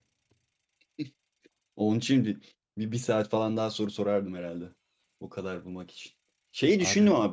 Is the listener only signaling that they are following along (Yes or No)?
Yes